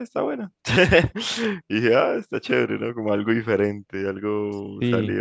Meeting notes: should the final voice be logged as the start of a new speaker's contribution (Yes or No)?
Yes